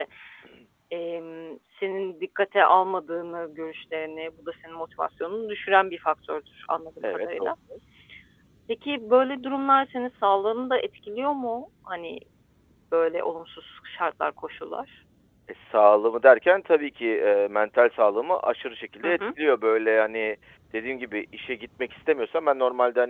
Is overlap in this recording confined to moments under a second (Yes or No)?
Yes